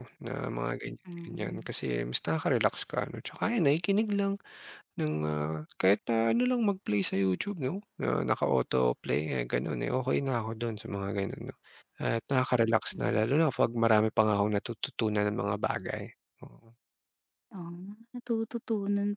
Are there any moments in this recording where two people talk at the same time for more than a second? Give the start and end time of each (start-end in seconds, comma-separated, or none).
none